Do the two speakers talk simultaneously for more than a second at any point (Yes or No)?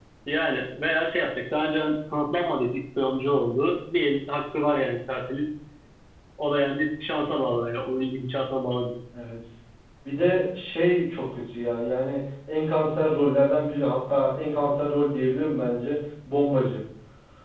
No